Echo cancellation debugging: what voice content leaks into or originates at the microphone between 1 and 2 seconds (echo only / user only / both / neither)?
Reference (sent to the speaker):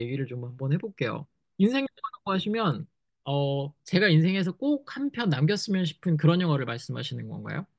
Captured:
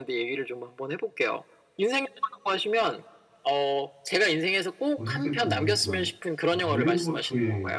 echo only